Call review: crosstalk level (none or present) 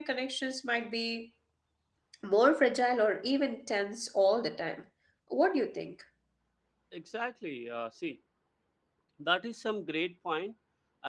none